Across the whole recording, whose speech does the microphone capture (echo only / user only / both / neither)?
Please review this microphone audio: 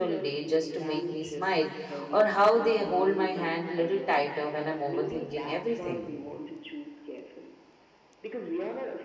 both